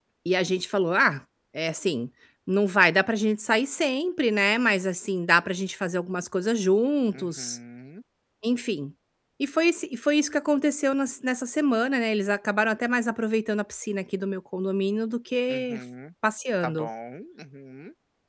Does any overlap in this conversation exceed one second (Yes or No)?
No